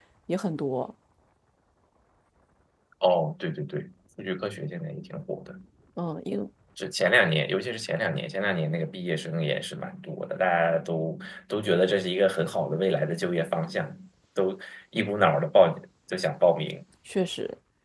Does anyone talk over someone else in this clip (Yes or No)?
No